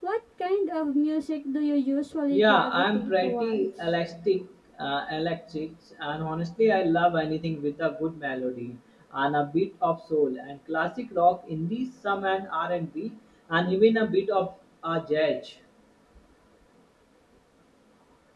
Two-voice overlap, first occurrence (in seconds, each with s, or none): 2.3 s